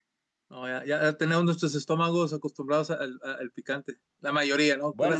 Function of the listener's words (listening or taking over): taking over